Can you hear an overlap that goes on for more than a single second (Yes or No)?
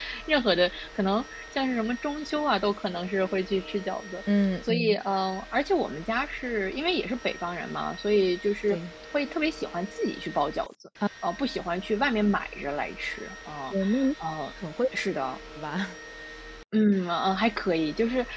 No